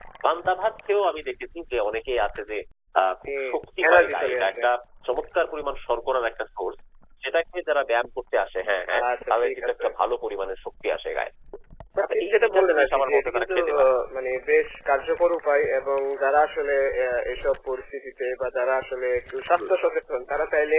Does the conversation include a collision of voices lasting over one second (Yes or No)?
Yes